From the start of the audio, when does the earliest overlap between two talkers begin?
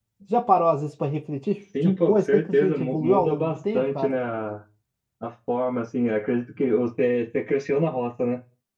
1.7 s

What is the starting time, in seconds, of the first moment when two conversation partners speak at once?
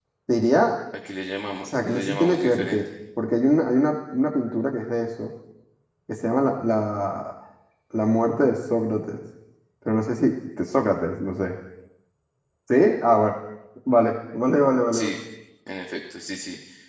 1.6 s

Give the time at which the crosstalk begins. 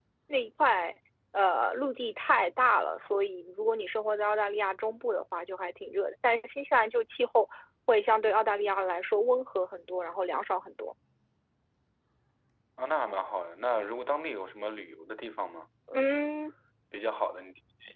none

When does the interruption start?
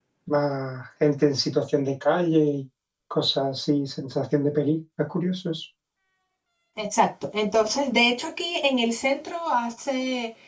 none

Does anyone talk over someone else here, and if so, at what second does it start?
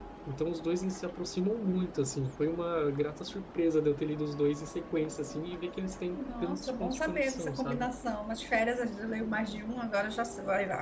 6.0 s

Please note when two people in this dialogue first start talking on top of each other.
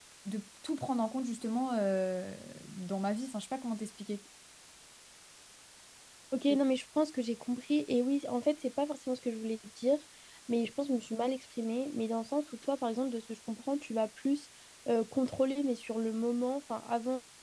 none

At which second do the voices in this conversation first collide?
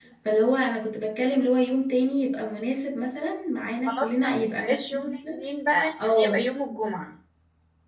3.9 s

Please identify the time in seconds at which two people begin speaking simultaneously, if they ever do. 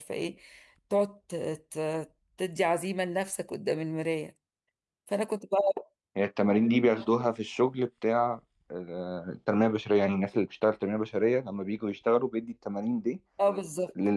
none

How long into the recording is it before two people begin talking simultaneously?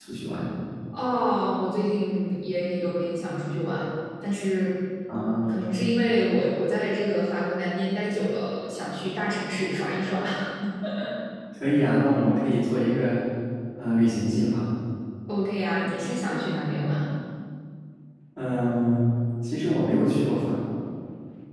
none

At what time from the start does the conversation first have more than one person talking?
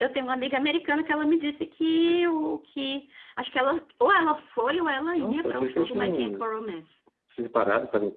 5.2 s

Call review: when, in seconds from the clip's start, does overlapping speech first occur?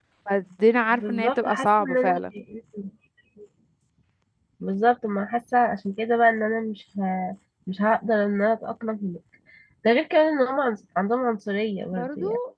0.9 s

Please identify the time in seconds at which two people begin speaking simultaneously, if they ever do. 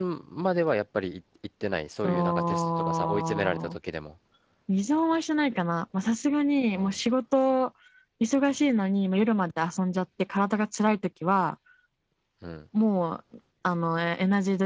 2.0 s

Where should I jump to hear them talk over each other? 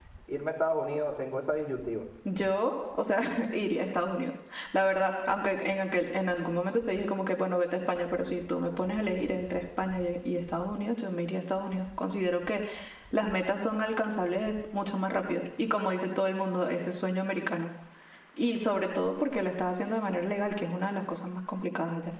none

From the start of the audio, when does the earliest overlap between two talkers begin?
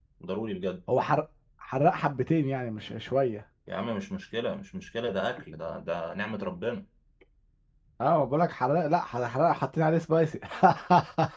none

